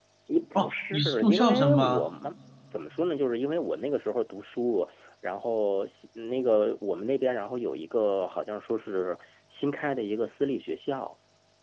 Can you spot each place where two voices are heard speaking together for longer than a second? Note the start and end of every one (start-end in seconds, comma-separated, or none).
0.6-2.1